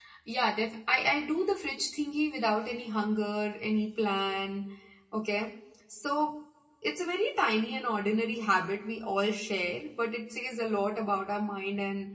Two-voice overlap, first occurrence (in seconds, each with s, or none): none